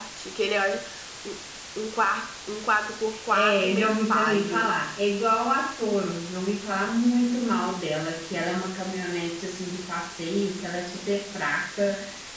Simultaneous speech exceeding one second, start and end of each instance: 3.3-4.7

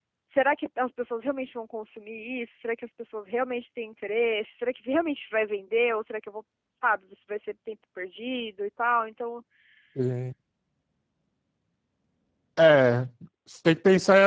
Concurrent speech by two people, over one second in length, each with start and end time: none

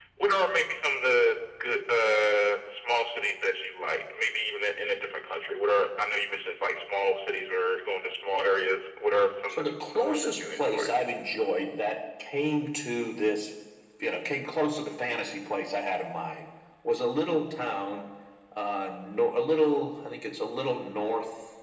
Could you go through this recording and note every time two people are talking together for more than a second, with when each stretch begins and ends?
9.5-10.9

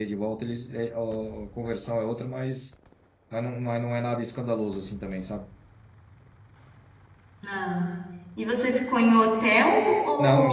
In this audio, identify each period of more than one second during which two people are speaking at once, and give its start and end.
none

